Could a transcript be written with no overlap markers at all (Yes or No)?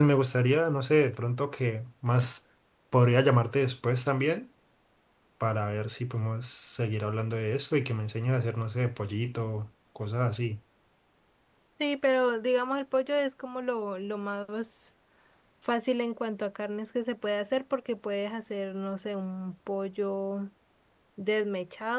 Yes